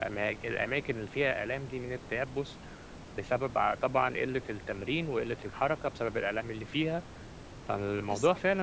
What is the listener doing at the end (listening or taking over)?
listening